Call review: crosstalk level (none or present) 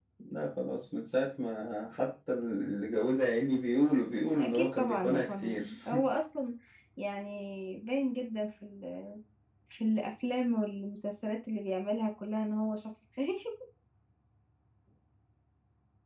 present